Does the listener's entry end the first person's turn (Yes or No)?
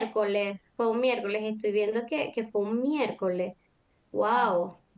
Yes